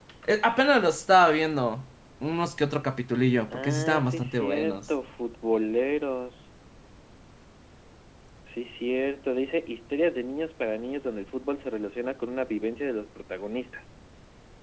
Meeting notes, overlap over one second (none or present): present